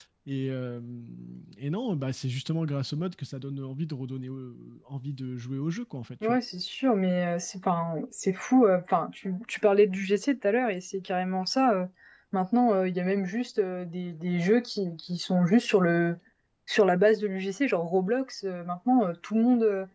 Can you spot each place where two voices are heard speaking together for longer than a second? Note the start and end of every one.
none

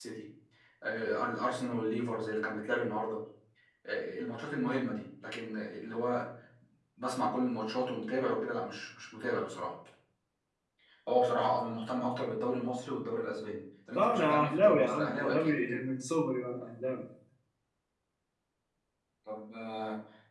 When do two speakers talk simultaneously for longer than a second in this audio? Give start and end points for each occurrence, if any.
13.9-15.6

